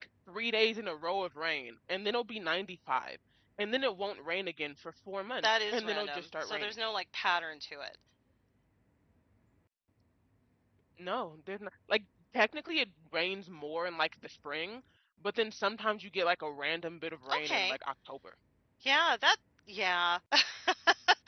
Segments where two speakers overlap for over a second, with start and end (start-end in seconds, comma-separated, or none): 5.4-6.7